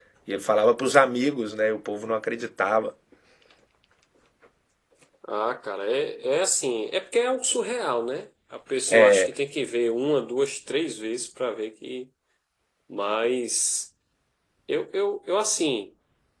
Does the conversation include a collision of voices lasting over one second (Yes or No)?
No